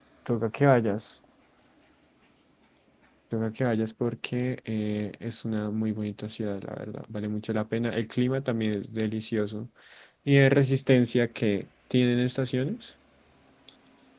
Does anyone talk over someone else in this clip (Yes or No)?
No